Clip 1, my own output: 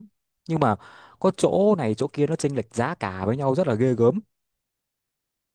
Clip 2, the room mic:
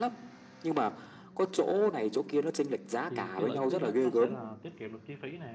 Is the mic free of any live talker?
No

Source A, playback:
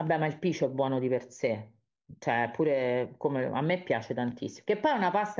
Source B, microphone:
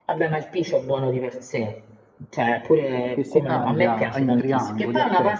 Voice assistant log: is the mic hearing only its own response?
No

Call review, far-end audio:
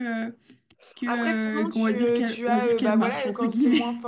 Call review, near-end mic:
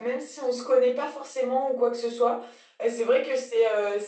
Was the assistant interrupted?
Yes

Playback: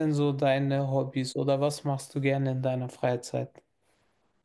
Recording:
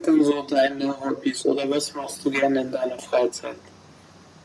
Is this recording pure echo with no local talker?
Yes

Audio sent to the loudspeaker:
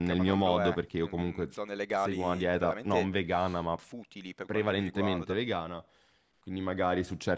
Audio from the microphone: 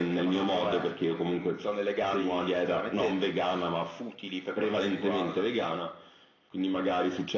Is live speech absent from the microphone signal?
Yes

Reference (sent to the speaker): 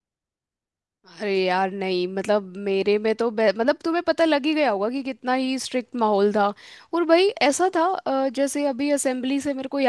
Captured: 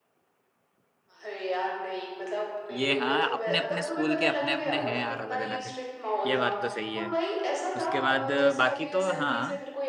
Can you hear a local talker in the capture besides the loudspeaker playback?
Yes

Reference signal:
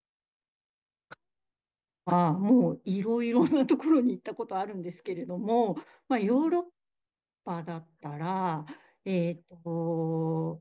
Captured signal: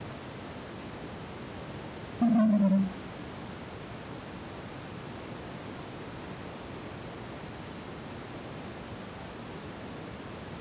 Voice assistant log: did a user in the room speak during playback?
Yes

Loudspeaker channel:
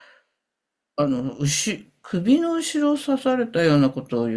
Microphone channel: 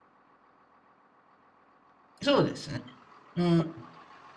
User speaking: Yes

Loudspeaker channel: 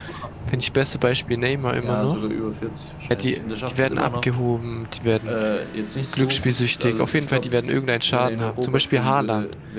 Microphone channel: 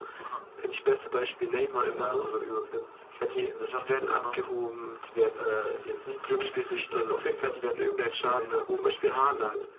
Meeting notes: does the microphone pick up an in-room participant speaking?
No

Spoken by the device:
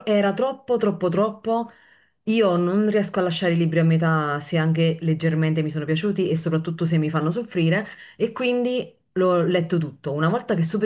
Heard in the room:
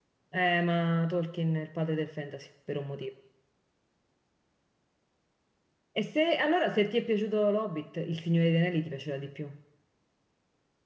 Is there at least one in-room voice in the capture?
Yes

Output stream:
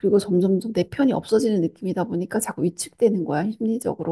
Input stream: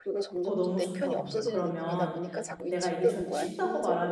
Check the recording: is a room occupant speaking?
Yes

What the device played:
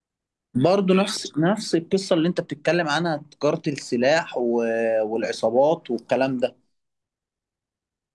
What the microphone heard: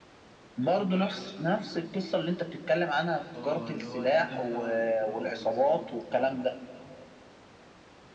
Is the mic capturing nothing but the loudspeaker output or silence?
No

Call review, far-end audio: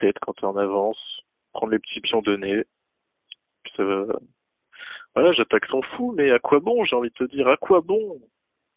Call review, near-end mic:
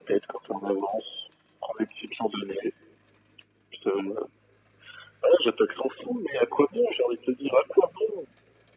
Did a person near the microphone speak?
No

